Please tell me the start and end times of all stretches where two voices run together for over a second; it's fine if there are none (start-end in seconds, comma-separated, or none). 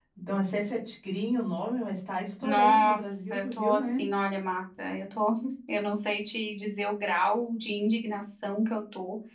2.4-4.1